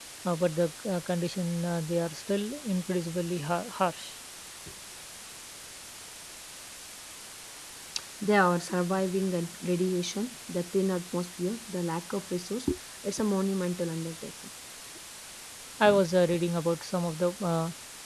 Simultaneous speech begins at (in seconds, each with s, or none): none